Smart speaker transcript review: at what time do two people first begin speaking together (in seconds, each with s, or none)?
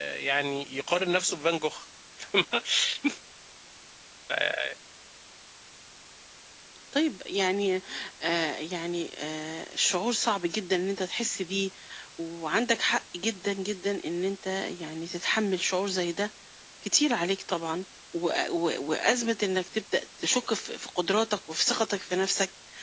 none